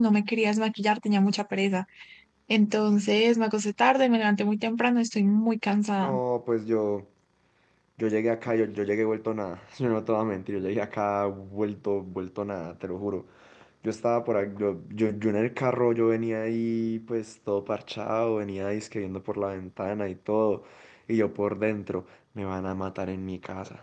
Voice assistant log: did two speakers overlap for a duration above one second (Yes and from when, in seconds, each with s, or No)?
No